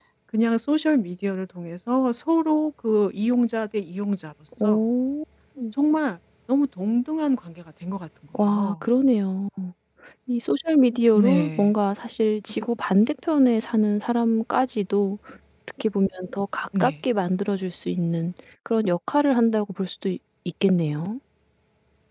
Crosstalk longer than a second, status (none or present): none